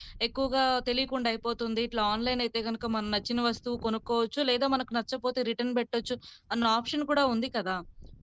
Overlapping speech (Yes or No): No